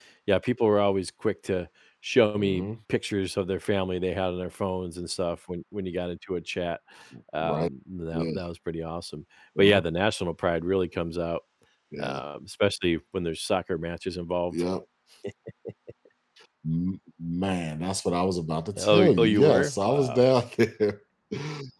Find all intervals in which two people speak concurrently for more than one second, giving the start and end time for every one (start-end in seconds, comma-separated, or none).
18.8-20.2